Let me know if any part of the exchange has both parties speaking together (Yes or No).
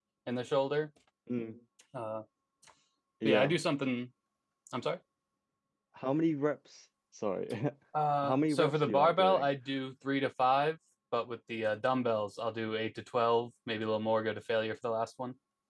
Yes